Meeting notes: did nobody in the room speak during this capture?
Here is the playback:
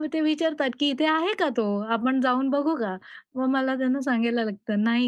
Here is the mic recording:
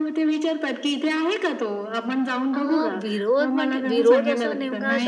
No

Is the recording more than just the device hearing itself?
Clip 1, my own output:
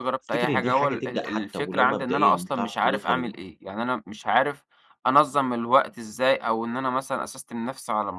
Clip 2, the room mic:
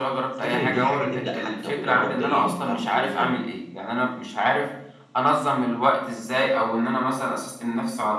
No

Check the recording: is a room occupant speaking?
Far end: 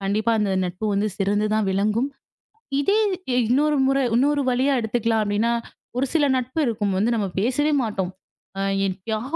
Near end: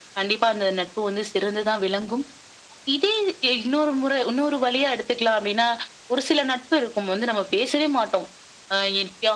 No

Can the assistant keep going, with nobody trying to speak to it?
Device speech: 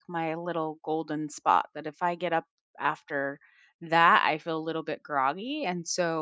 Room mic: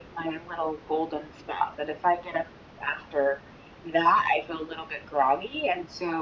Yes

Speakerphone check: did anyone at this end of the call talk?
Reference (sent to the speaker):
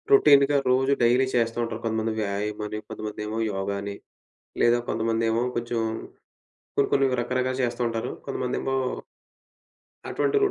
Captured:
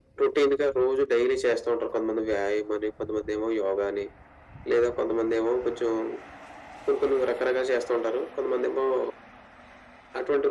No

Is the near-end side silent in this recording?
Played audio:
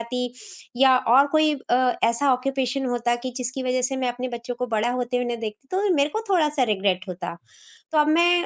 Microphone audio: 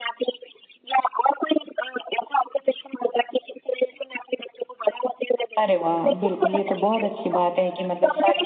No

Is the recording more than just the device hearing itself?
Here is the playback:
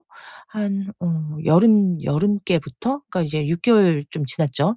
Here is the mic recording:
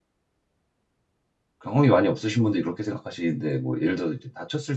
Yes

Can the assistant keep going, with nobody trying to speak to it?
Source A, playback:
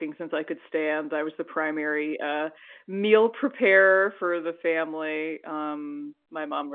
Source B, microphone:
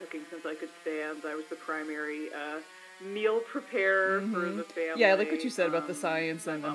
No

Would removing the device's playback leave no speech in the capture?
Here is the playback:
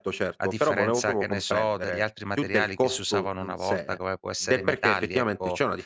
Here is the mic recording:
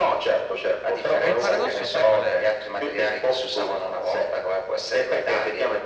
No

